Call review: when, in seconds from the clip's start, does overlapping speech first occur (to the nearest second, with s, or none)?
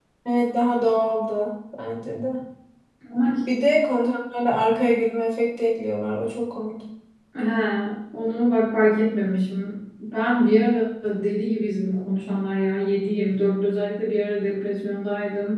none